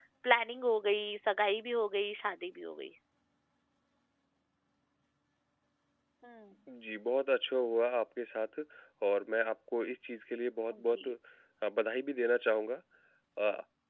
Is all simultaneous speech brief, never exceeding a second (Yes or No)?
Yes